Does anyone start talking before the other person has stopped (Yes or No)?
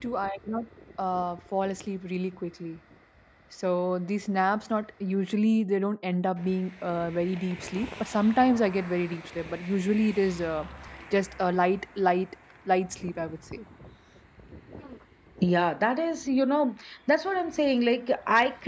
No